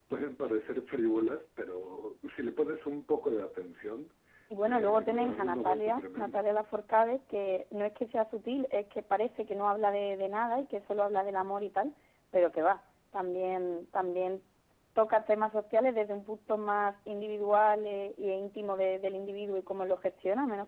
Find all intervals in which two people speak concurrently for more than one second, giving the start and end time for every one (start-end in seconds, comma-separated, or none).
4.6-6.4